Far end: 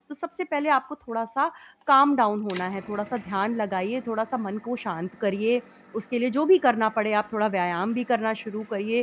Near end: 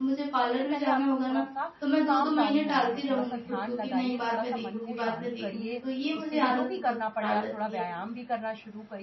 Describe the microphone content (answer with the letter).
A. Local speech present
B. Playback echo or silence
A